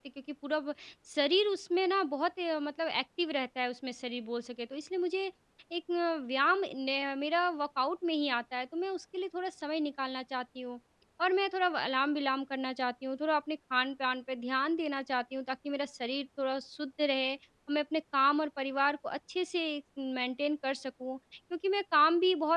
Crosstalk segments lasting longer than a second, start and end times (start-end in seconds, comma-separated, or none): none